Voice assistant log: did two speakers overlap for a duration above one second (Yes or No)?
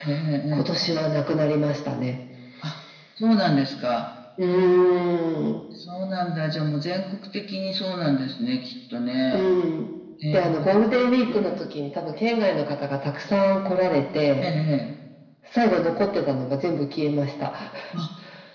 No